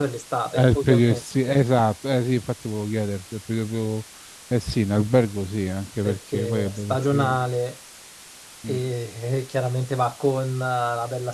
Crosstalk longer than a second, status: present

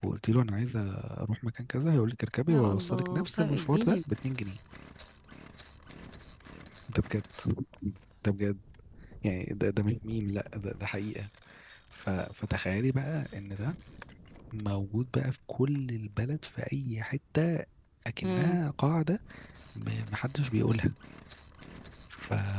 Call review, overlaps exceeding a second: present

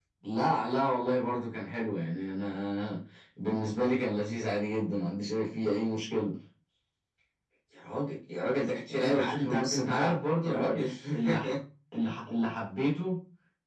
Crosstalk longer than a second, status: present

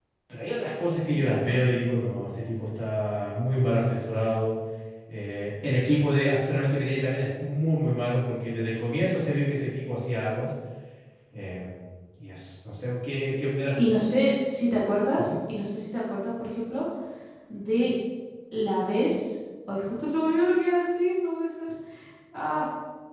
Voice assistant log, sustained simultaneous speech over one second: none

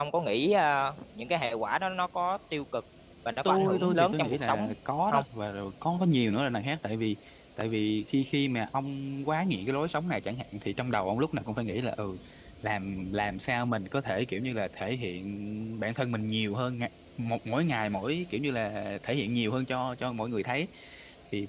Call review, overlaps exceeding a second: present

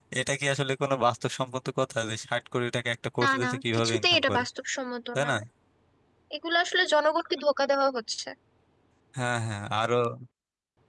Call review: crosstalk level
present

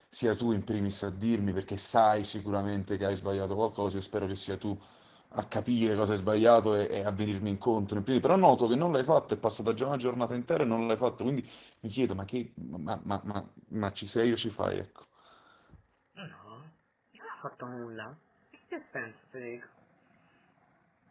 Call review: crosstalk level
none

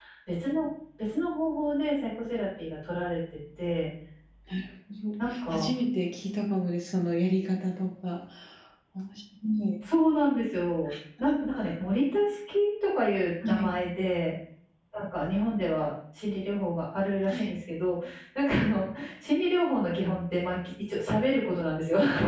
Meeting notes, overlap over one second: none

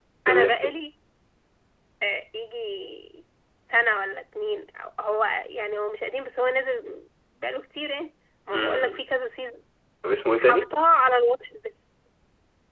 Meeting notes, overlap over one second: none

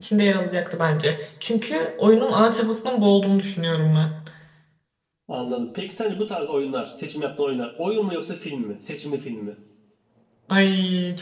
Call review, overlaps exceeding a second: none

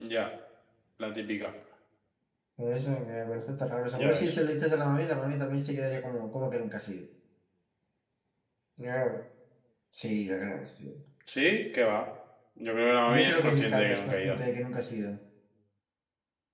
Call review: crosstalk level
present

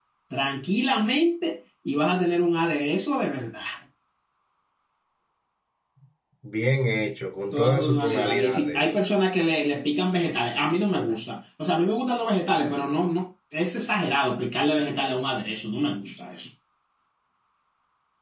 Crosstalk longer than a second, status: present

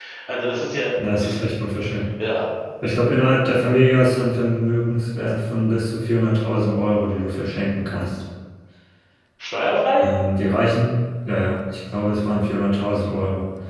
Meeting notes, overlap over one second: none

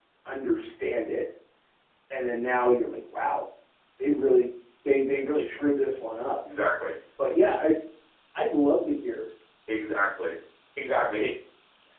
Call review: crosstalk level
none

